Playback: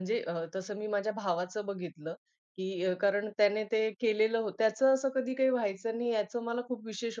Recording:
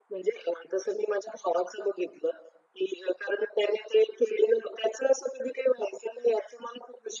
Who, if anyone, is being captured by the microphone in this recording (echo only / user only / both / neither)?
echo only